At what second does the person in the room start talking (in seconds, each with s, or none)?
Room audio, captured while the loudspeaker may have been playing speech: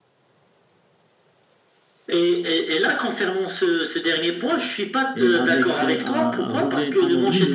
5.1 s